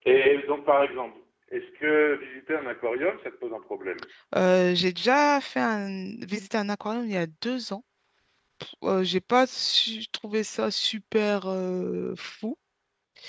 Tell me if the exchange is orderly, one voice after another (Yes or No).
Yes